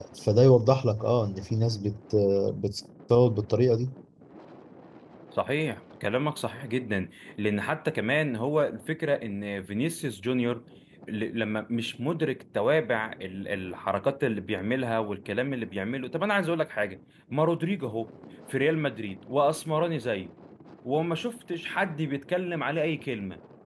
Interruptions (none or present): none